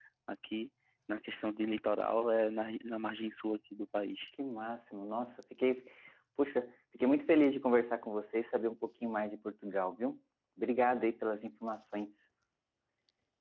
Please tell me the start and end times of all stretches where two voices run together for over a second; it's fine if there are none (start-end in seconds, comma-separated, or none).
none